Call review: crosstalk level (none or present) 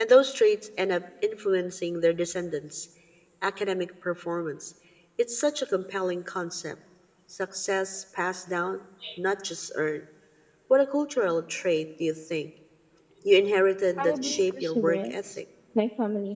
present